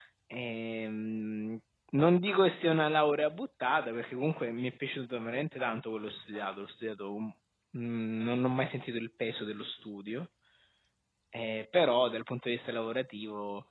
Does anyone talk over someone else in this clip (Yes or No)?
No